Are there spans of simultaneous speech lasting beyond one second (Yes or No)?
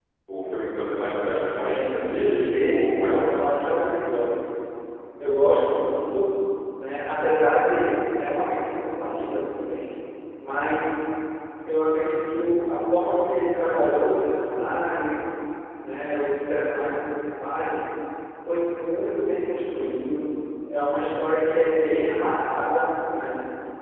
Yes